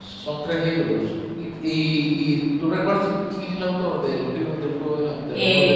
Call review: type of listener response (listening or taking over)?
taking over